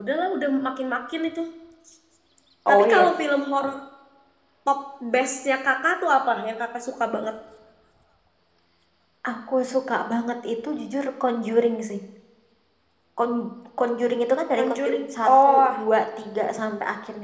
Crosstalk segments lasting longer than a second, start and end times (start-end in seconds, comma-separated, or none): 14.6-15.8